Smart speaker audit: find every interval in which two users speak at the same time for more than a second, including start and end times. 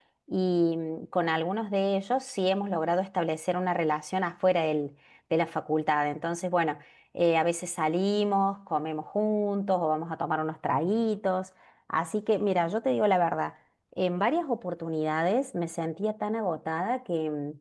none

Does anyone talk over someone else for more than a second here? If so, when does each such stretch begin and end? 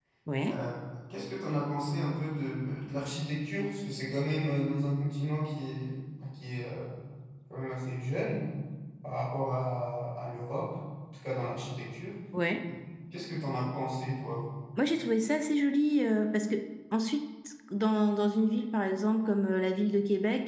none

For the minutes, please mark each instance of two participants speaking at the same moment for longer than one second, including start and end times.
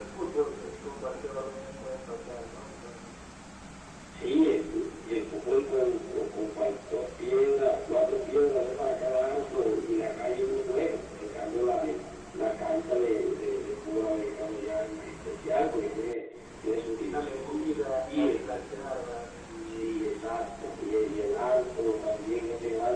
17.0-18.6

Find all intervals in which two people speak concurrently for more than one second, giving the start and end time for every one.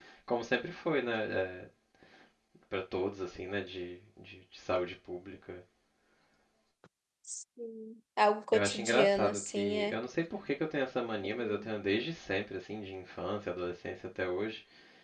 8.5-9.9

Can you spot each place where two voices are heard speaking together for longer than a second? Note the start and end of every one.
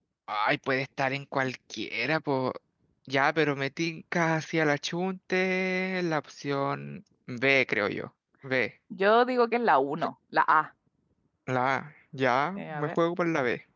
none

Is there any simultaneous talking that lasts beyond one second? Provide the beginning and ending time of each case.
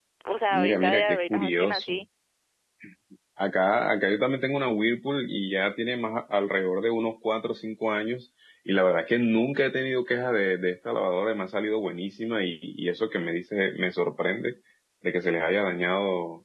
0.5-1.9

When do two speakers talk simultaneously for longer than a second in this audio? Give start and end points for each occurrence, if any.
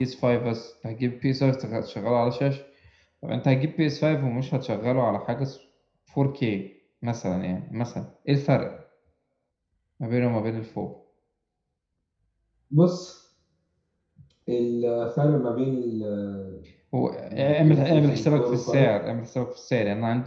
17.3-18.9

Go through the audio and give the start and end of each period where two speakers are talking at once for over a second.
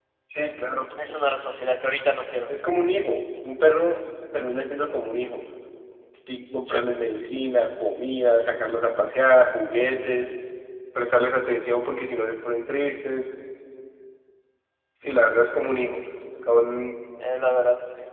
none

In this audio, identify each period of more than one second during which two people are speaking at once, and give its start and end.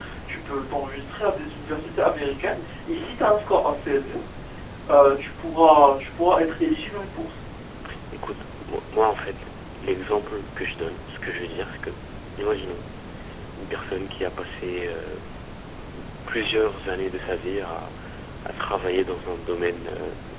none

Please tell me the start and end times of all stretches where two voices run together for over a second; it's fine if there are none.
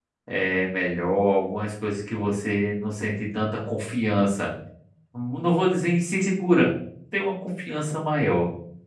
none

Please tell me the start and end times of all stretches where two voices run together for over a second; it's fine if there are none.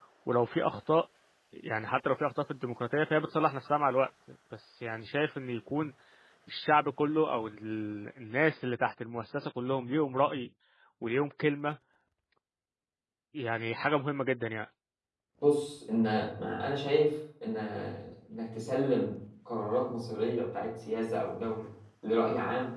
none

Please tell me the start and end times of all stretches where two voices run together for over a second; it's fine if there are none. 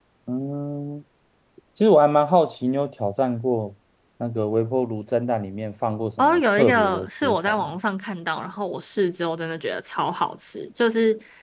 6.2-7.7

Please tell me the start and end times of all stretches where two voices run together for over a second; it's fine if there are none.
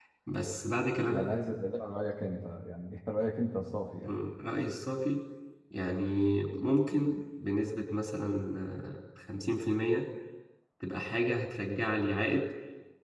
none

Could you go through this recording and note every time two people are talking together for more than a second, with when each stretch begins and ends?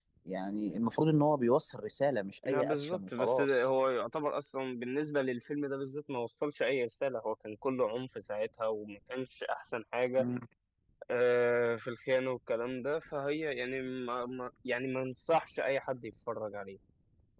2.4-3.6

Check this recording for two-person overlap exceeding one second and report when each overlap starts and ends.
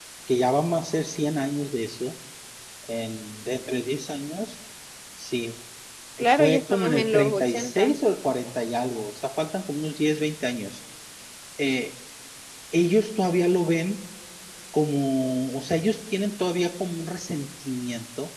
6.3-8.0

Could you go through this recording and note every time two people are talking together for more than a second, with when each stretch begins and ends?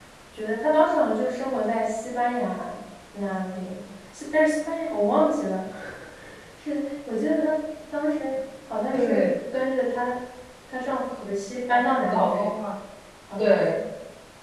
none

